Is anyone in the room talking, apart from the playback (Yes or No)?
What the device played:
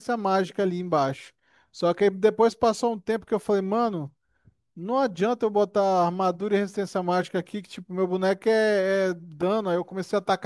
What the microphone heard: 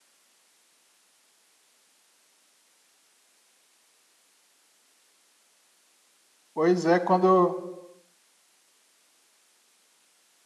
Yes